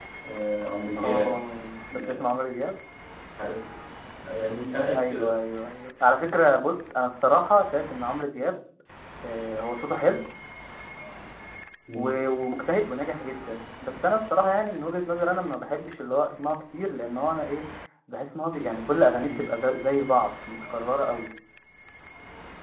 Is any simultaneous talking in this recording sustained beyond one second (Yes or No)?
No